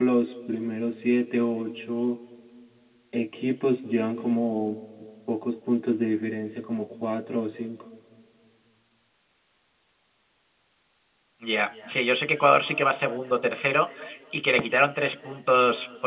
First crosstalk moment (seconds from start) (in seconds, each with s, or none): none